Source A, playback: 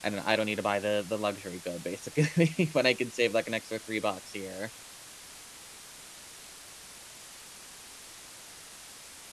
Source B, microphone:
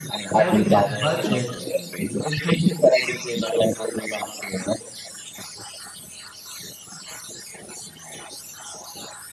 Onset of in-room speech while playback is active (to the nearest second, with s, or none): 0 s